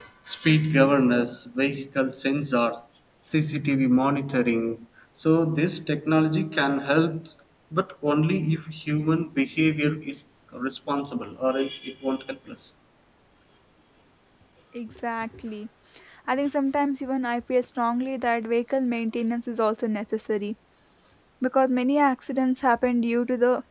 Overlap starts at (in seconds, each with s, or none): none